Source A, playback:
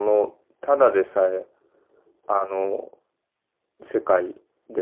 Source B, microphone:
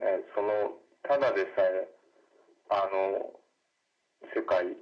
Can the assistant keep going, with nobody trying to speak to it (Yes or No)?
Yes